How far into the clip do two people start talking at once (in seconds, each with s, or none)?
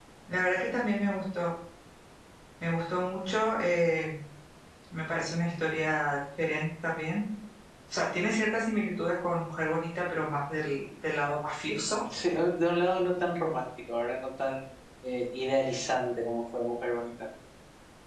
none